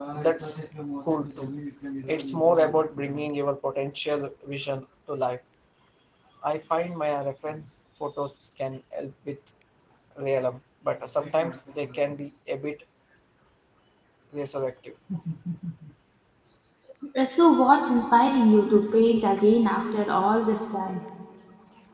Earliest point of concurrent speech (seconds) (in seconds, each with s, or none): none